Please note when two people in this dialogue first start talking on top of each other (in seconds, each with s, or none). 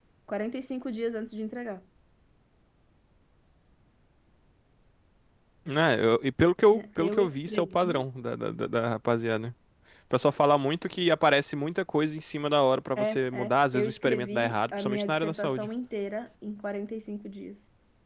6.7 s